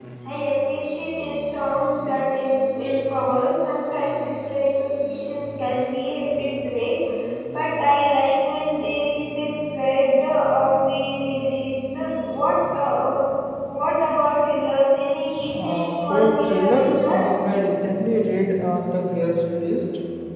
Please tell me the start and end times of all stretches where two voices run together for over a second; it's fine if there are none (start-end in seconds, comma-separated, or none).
15.5-17.2